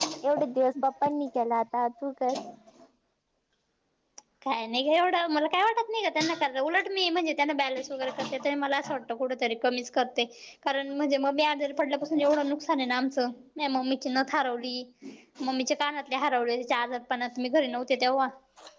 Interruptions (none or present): none